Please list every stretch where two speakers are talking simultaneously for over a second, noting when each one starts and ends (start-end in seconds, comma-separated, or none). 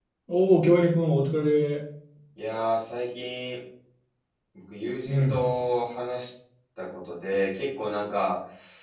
none